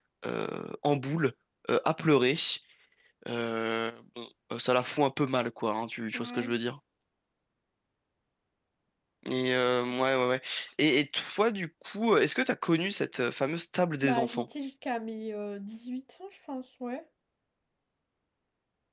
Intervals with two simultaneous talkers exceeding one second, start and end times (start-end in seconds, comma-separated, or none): none